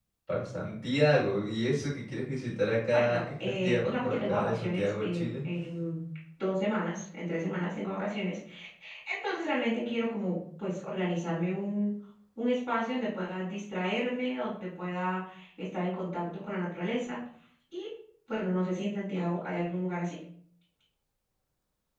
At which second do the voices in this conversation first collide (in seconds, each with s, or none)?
2.9 s